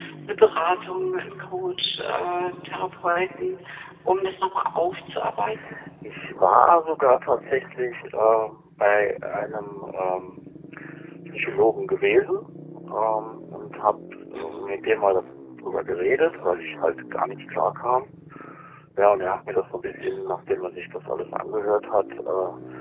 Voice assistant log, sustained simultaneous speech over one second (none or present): none